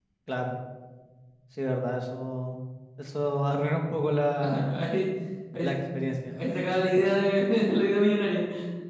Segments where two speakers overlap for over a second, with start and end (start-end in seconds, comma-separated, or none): none